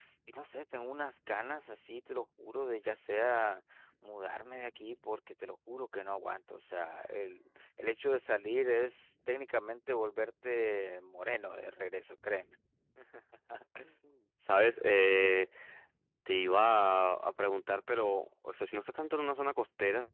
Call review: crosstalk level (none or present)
none